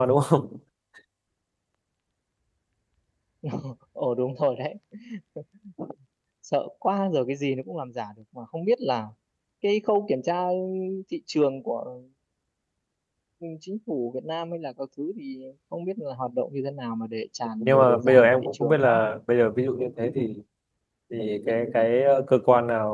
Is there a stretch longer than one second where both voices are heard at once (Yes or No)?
Yes